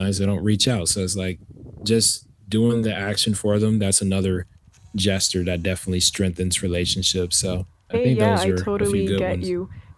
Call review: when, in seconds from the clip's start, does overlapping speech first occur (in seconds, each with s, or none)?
7.9 s